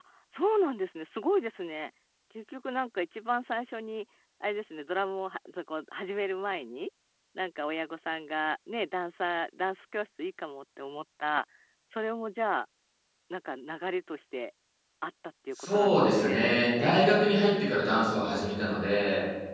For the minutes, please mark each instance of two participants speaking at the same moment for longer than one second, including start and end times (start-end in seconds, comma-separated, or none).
15.6-16.9